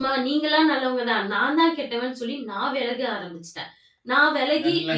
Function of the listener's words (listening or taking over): listening